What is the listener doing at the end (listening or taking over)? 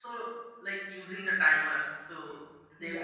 taking over